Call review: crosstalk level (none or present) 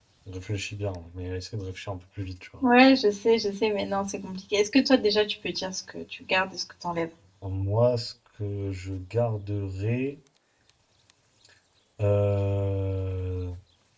none